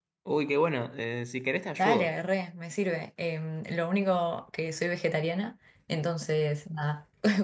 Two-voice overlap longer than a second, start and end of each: none

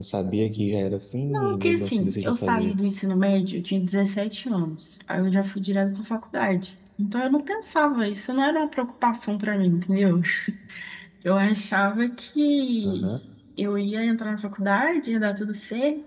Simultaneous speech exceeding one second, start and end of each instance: 1.5-2.8

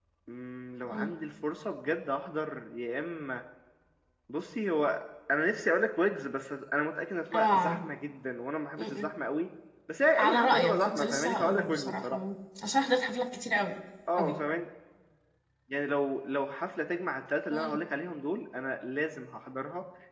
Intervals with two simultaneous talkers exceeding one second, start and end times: 10.2-12.2

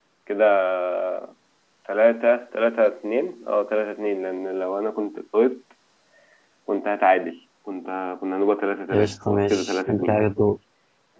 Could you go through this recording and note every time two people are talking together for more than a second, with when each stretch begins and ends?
8.9-10.2

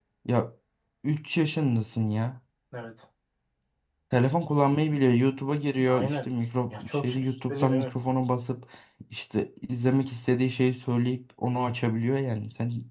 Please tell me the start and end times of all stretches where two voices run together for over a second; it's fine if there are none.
6.7-7.9

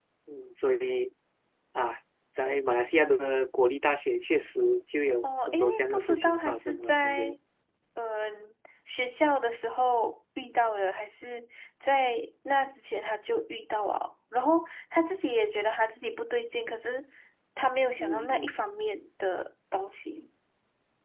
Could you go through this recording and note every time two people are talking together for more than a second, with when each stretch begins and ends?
5.2-7.4

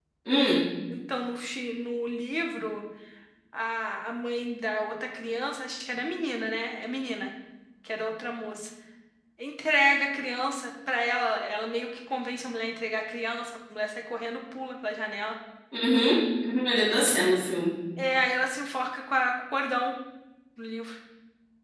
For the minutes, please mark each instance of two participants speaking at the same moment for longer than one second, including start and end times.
none

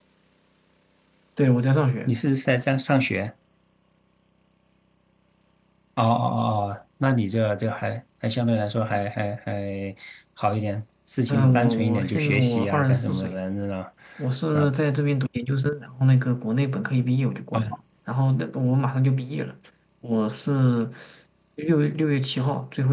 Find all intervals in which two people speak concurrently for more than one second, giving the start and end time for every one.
11.3-13.3

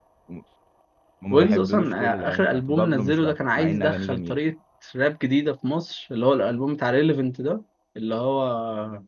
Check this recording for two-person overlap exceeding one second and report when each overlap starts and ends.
1.3-4.4

